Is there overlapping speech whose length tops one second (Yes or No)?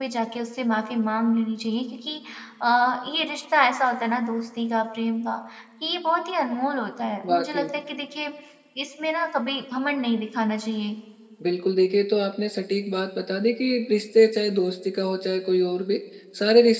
No